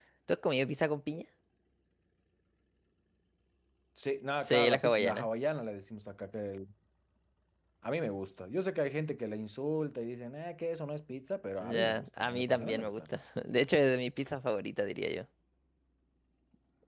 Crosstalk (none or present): present